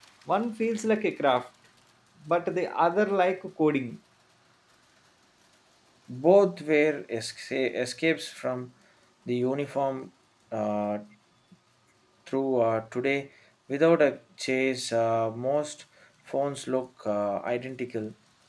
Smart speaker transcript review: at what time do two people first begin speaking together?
none

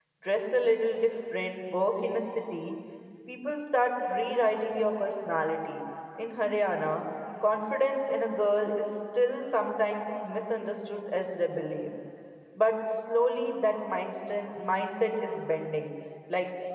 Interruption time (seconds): none

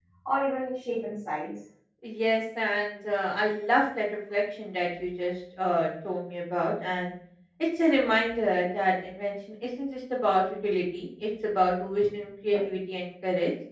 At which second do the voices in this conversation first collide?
none

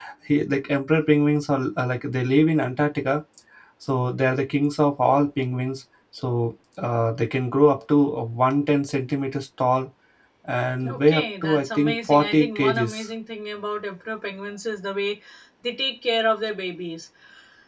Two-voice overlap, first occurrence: 10.8 s

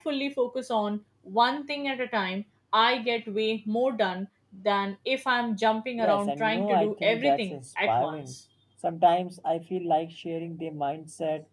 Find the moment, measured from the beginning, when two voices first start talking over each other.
6.0 s

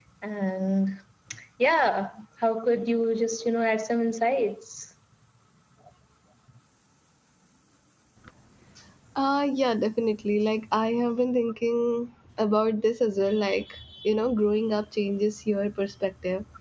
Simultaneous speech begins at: none

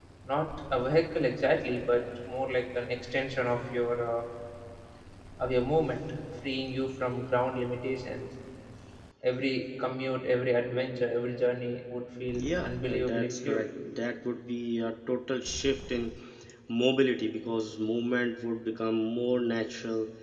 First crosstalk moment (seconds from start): 12.3 s

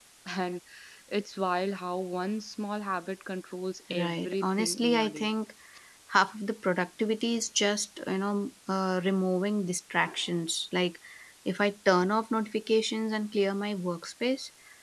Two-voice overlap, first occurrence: 3.9 s

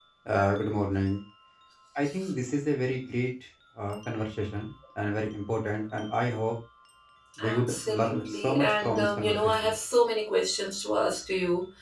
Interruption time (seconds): 7.4 s

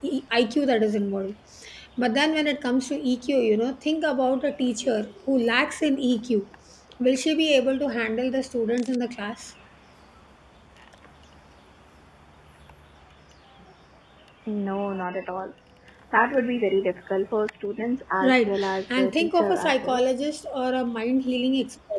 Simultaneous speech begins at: 18.2 s

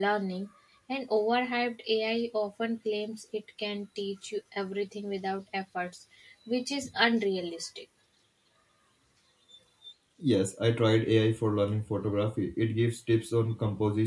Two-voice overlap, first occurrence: none

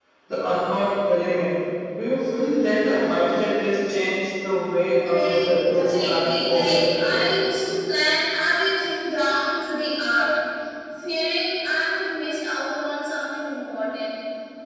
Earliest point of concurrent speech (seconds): 5.0 s

